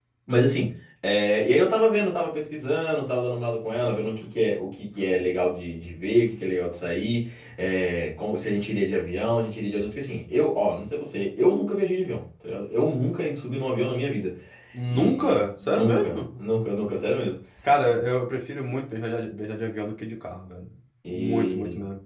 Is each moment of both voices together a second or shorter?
No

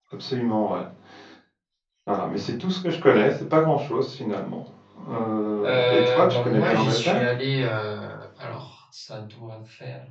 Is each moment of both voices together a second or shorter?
No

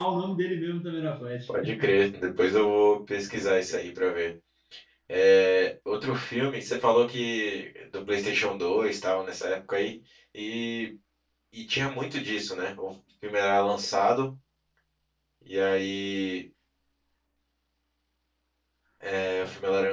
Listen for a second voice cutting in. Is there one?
No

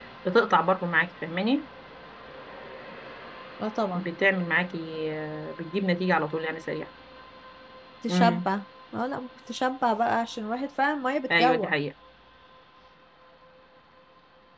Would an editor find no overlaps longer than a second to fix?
Yes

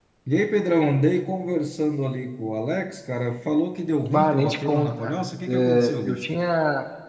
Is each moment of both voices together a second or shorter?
No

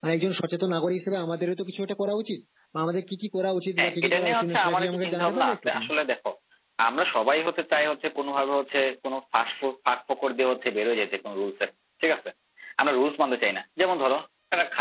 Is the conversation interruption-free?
No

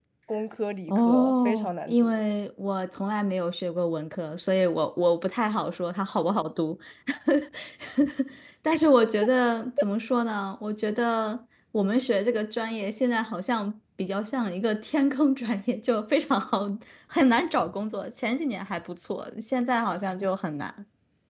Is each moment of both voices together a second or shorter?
No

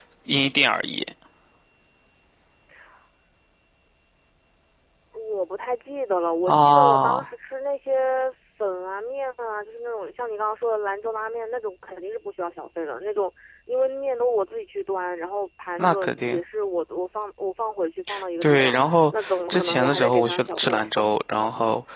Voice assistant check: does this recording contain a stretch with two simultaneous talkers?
Yes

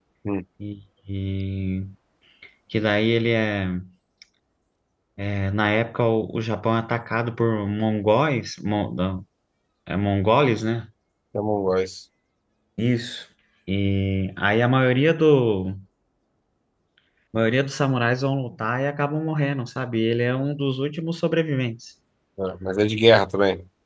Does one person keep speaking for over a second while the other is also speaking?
No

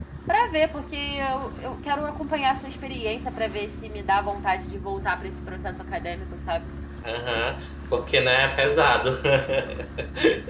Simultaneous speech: No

